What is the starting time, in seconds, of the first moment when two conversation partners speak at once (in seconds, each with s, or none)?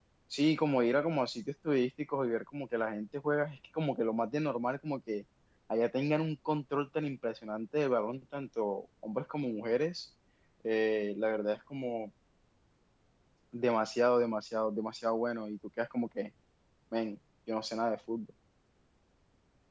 none